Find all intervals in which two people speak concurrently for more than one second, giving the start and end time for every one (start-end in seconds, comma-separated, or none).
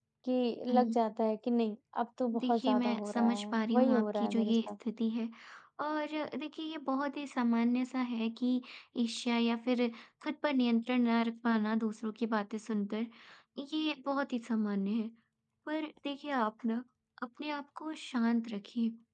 2.4-4.7